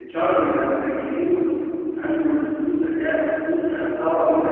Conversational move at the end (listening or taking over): taking over